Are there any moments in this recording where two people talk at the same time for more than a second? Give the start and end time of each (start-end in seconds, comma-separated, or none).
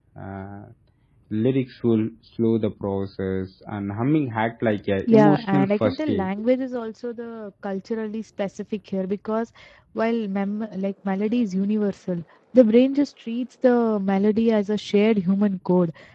5.1-6.3